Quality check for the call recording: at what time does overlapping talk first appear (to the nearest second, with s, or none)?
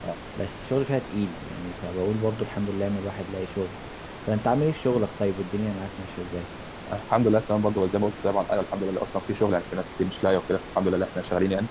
none